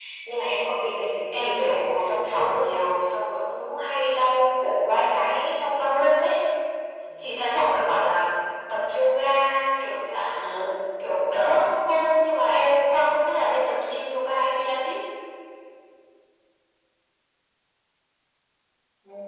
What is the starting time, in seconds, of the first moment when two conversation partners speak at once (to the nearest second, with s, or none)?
1 s